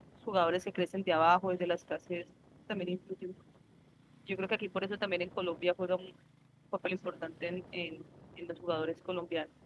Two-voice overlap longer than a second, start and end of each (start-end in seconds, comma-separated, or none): none